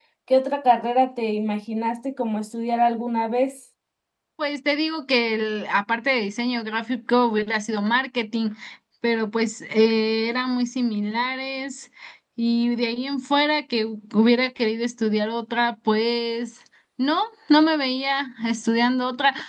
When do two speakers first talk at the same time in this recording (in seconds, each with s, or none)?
none